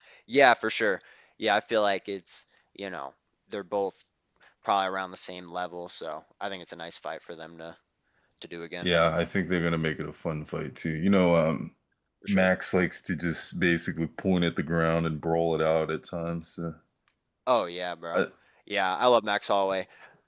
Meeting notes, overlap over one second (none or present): none